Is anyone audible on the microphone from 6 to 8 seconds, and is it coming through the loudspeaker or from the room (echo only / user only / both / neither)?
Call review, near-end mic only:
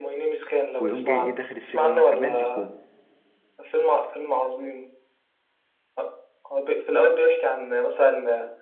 echo only